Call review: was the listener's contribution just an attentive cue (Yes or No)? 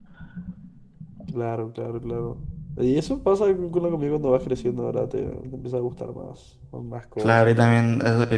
No